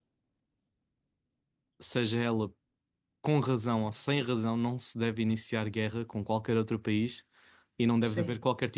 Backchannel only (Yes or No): Yes